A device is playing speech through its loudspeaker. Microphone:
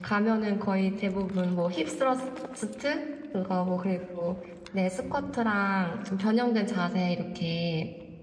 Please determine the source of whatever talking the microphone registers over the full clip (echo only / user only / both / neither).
user only